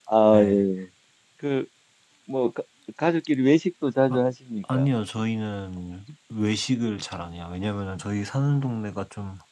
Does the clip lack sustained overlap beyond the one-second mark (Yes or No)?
Yes